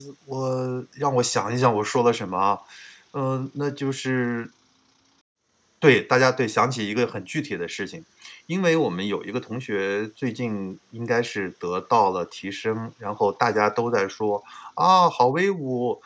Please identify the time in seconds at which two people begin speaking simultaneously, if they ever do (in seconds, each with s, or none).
none